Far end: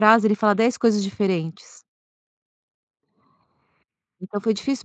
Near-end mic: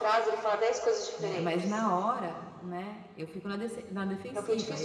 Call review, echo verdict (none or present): present